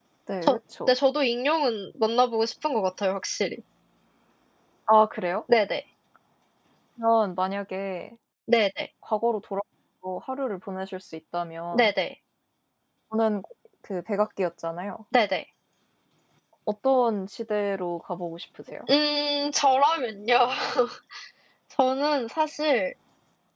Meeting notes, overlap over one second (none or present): none